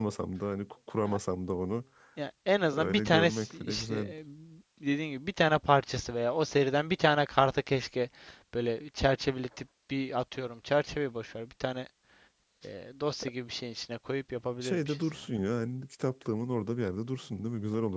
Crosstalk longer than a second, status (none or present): present